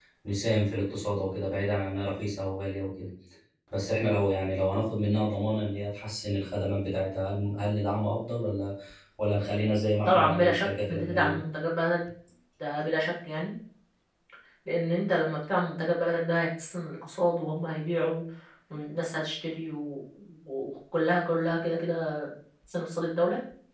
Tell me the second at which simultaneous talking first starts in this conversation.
10 s

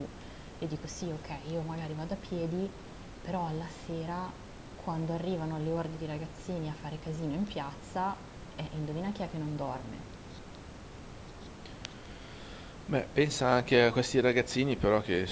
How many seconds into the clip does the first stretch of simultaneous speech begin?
none

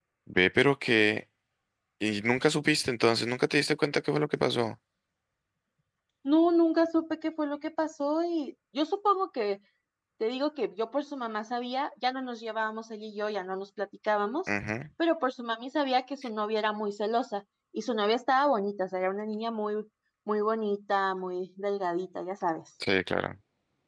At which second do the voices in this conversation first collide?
none

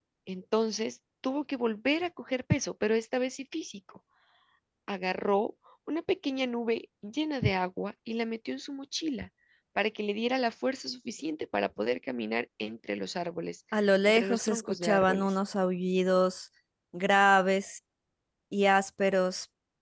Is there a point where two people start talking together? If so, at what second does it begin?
14 s

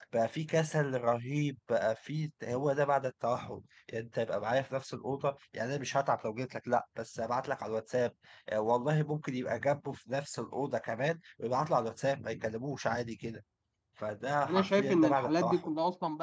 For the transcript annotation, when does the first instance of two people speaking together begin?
14 s

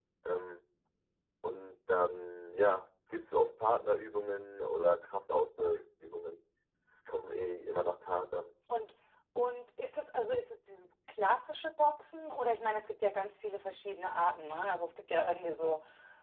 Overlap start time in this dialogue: none

